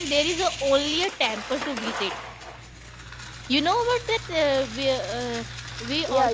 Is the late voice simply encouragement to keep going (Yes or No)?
Yes